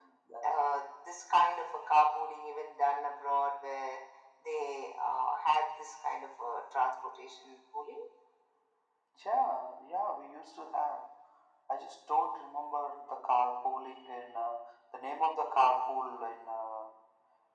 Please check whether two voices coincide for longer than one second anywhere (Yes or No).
No